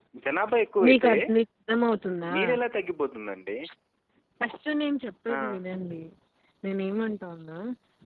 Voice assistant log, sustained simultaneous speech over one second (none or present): none